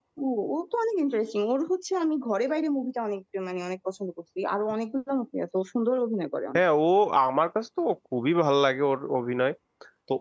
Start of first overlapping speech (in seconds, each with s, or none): none